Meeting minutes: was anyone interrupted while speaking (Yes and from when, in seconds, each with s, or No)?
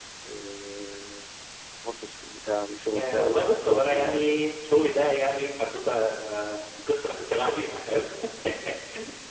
Yes, from 2.9 s